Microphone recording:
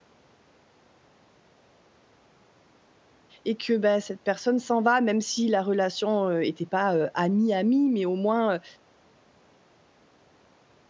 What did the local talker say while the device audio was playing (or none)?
et que, bah, cette personne s'en va, même si la relation, heu, était pas, heu, amie-amie, mais au moins, heu,